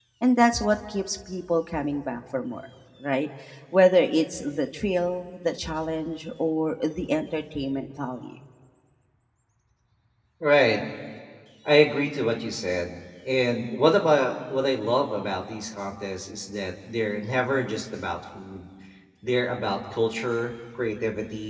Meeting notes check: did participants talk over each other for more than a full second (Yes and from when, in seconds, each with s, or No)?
No